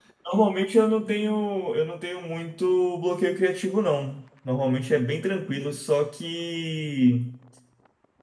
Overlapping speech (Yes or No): No